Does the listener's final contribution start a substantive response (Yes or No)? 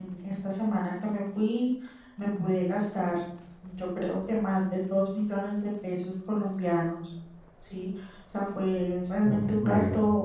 No